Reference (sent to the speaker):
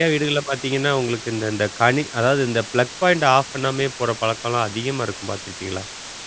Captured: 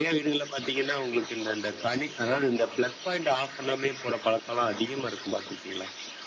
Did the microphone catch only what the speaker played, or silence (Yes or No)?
Yes